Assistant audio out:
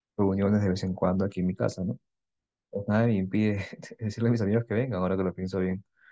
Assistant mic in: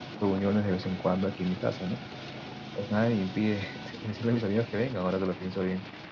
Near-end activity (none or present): none